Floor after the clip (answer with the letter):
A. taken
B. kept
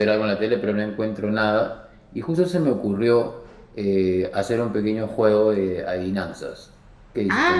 A